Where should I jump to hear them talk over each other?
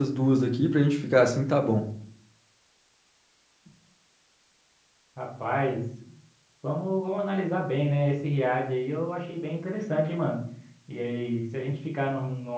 none

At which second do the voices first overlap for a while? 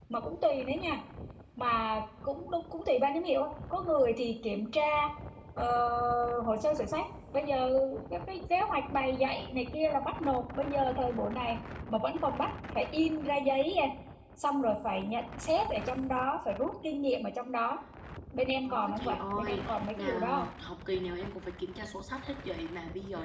19 s

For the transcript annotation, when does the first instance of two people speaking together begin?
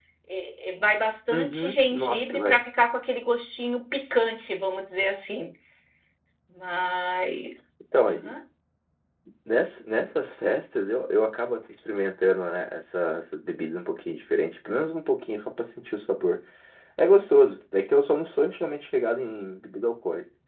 1 s

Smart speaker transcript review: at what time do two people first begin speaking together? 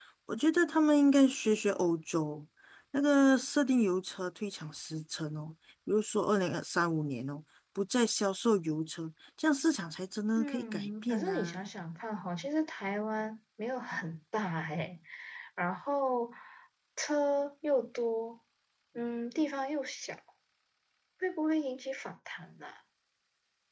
10 s

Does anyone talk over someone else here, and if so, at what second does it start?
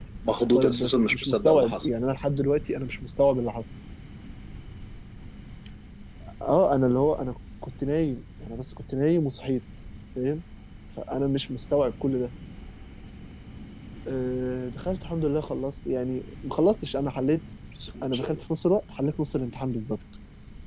1 s

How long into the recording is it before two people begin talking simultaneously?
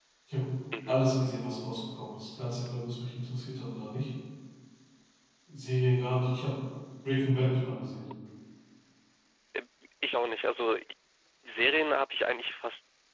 none

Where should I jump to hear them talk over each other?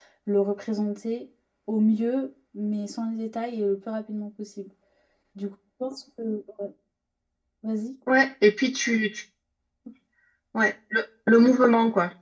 none

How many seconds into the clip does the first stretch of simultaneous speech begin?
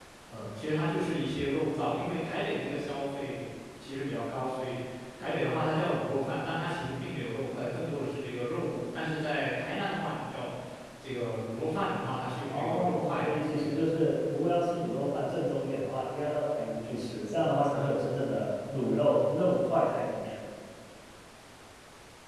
13 s

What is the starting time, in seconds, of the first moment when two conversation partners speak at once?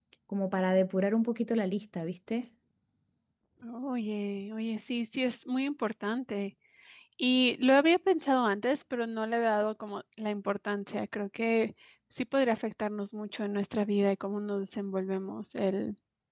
none

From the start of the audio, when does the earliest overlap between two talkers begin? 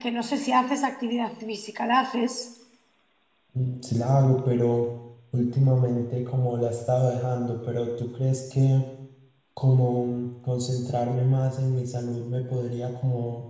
none

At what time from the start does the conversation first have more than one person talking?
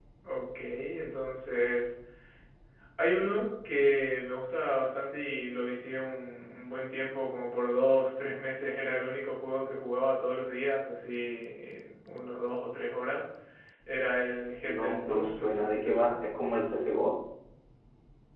15 s

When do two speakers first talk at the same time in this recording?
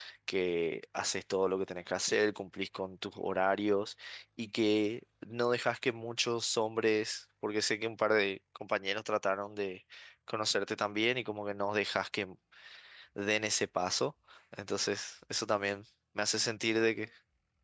none

